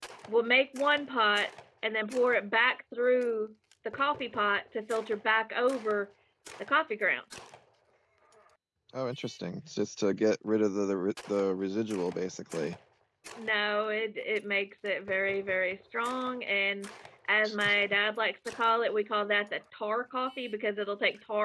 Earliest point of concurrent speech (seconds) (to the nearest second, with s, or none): none